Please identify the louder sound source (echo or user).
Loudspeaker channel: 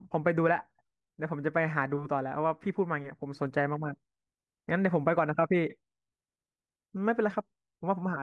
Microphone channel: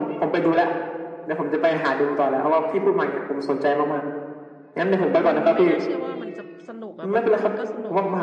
echo